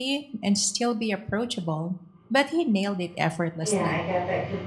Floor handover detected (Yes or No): Yes